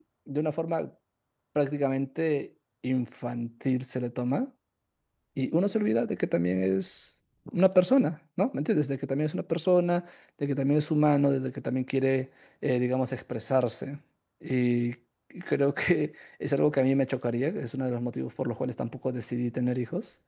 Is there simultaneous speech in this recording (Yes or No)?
No